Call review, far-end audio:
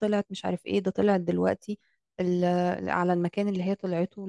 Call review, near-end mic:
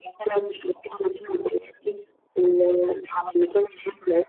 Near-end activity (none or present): none